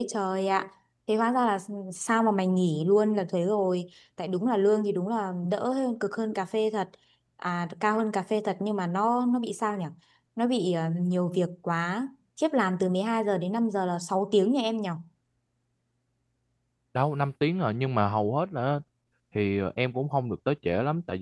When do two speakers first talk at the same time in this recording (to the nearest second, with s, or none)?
none